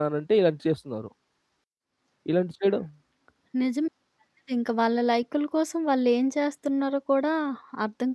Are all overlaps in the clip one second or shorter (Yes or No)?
Yes